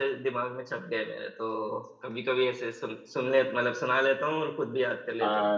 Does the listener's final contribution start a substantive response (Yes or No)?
Yes